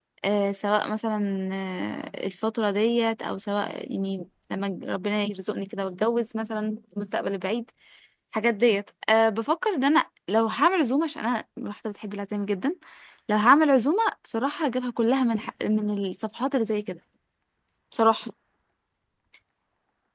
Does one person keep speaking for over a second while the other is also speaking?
No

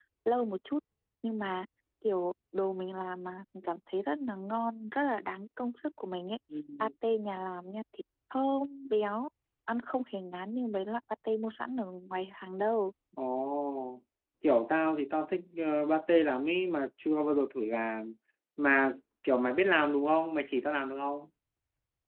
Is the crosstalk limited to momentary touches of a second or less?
Yes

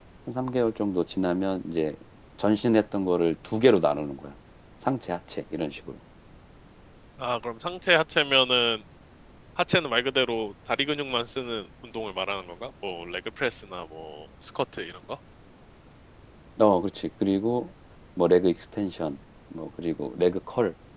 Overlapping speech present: No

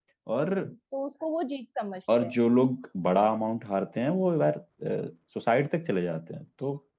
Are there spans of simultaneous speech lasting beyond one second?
No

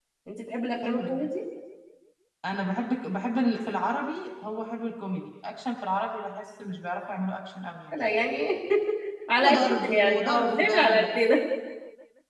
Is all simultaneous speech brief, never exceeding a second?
No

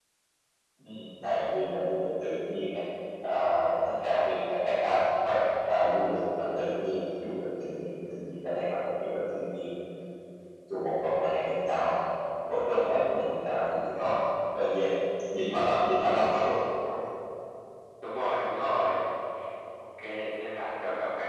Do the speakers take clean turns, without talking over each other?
Yes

